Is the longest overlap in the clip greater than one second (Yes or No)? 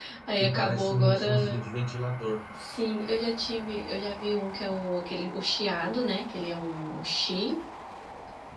Yes